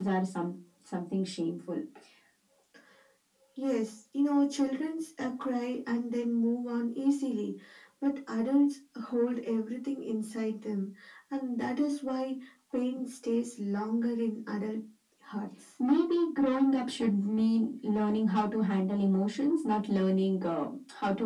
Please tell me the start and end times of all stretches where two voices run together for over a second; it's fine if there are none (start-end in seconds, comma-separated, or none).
none